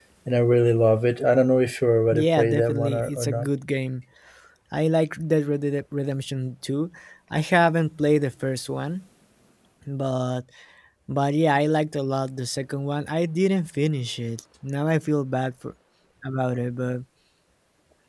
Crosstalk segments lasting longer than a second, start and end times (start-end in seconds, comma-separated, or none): 2.1-3.5